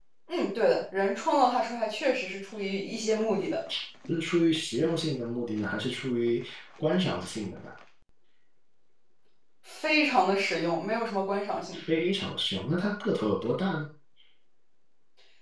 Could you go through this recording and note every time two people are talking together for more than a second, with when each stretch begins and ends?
none

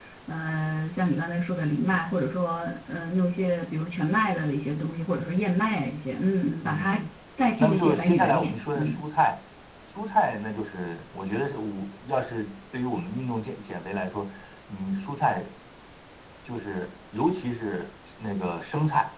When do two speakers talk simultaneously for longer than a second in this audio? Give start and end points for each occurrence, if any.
7.6-9.0

